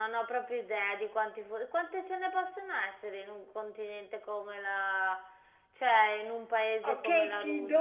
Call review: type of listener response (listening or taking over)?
taking over